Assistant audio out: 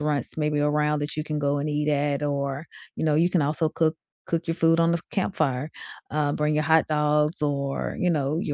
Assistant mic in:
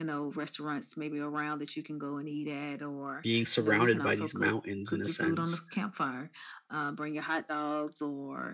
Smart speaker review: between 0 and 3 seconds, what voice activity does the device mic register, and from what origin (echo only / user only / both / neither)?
echo only